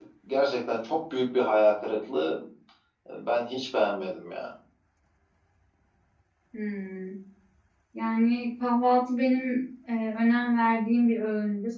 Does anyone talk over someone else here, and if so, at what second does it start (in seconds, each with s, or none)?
none